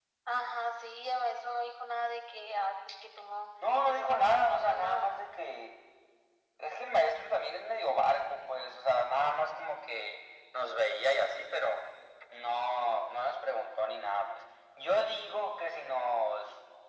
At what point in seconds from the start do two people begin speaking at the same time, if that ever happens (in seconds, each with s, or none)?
3.9 s